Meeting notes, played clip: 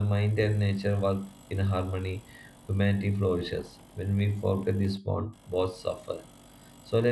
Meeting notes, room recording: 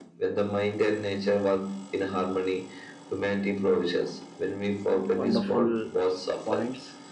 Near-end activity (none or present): present